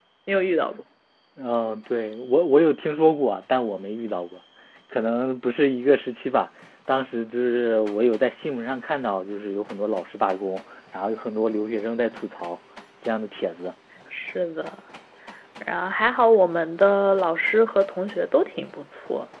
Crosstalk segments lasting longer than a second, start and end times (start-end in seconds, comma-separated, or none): none